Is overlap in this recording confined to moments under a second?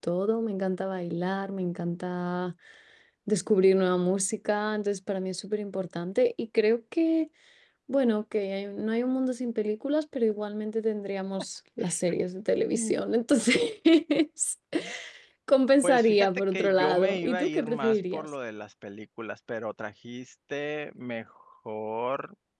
No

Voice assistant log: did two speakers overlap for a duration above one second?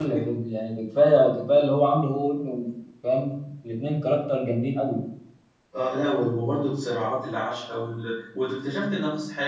No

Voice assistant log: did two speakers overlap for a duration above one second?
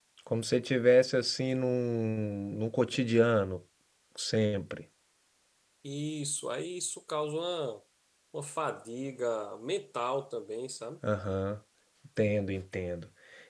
No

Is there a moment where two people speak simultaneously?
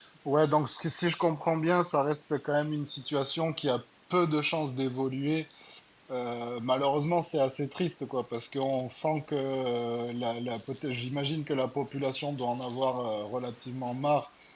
No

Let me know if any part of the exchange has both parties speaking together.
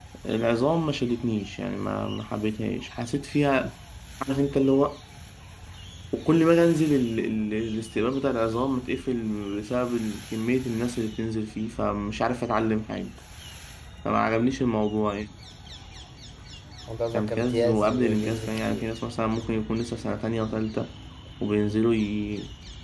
Yes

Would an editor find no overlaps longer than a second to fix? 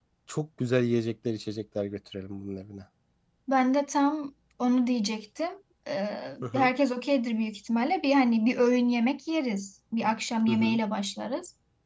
Yes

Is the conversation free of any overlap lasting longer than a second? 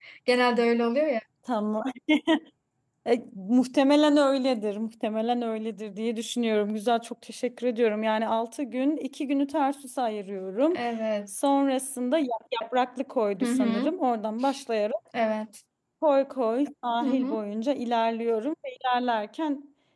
Yes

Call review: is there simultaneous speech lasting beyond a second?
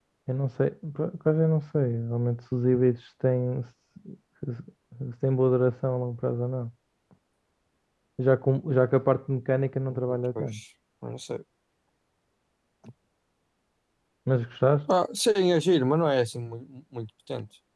No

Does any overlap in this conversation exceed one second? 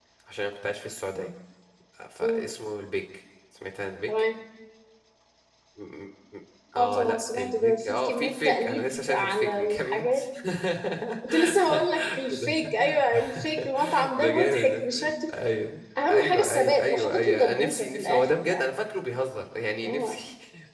Yes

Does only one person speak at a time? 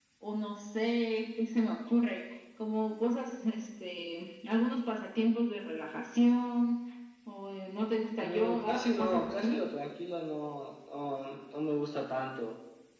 No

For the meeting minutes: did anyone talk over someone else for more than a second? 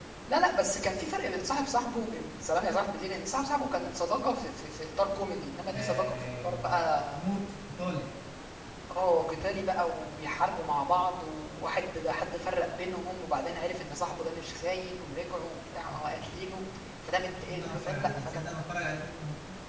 Yes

